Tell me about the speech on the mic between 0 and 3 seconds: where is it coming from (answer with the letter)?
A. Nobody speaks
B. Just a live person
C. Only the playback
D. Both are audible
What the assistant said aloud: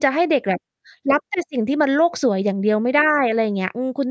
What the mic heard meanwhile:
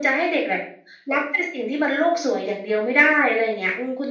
C